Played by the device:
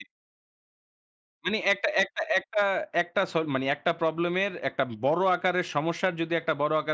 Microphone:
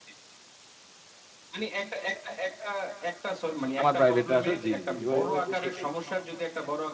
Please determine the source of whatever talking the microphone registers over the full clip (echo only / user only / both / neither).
both